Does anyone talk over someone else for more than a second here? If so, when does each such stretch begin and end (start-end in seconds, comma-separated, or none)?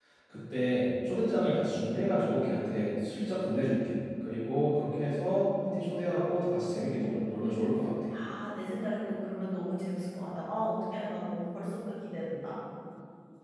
none